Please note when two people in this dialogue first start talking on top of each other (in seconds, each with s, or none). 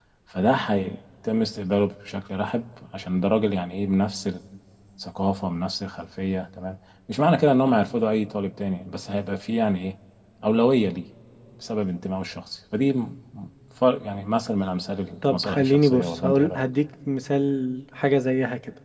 15.2 s